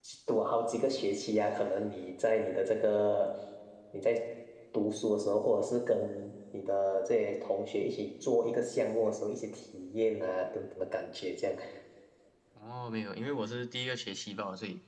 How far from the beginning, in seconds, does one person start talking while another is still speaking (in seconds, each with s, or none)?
none